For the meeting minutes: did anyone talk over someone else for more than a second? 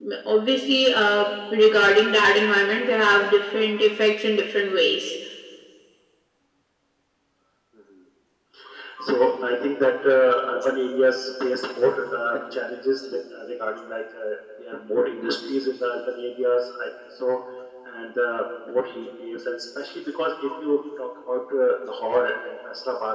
No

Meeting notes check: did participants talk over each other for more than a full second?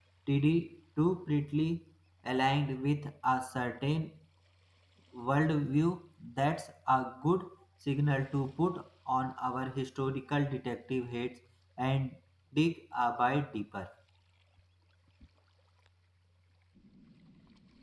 No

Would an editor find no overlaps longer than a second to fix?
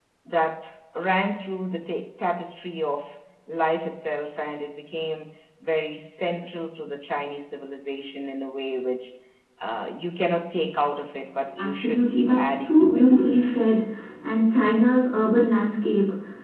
No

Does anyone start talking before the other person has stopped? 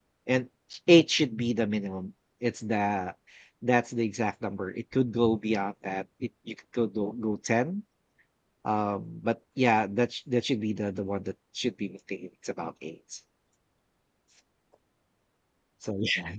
No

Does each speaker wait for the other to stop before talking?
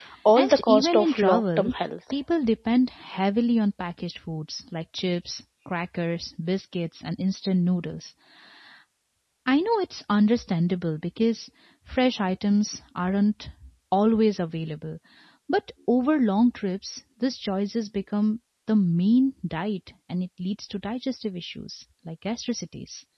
No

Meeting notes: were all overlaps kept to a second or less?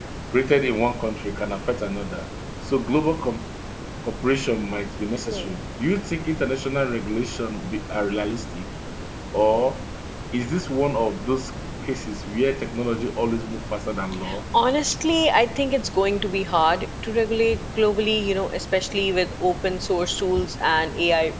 Yes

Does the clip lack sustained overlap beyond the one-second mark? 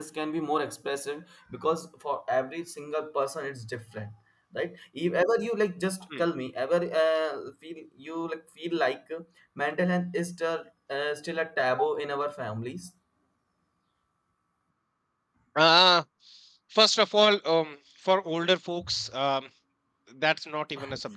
Yes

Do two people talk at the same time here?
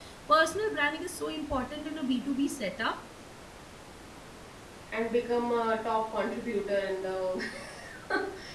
No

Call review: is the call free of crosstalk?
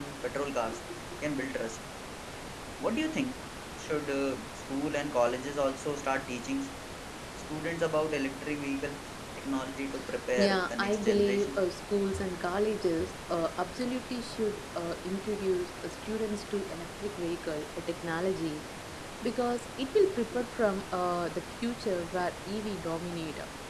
No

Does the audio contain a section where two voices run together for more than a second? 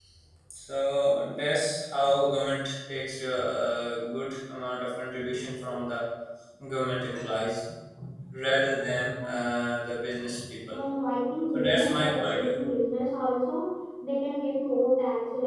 Yes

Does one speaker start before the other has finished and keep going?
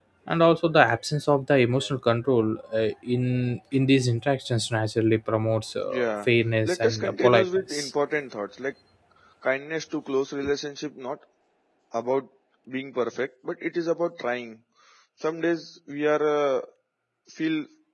Yes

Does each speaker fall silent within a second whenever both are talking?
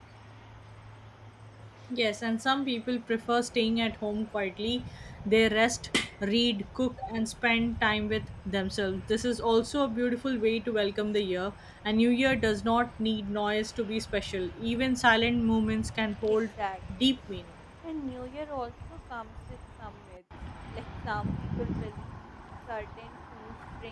Yes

